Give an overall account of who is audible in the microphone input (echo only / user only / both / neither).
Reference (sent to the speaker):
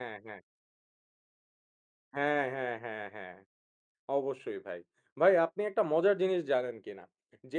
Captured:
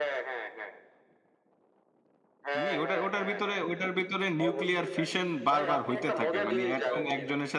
both